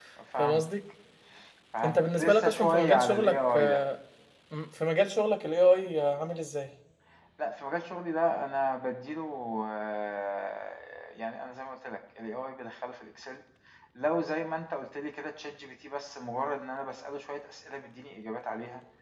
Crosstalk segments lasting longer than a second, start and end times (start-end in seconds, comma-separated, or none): 1.8-3.8